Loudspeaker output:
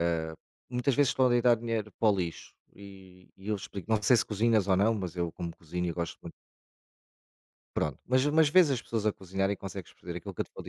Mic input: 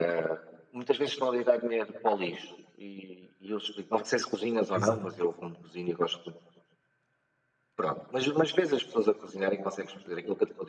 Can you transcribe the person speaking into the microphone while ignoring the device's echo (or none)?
Exatamente.